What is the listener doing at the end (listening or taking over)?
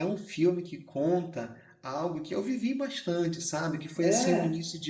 listening